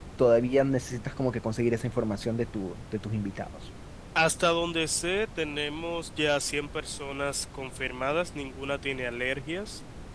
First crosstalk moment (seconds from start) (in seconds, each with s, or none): none